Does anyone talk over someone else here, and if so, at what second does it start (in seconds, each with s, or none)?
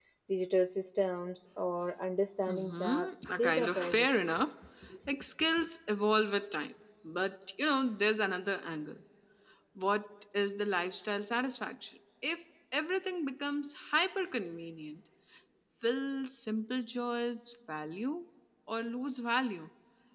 2.5 s